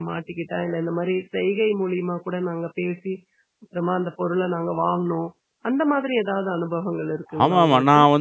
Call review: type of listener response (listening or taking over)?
taking over